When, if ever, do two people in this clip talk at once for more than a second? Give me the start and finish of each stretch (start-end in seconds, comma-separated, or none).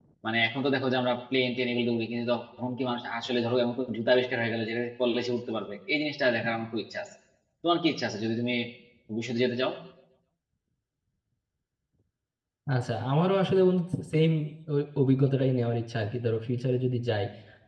none